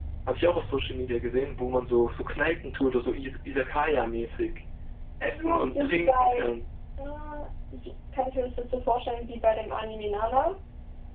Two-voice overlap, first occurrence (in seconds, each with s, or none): 5.3 s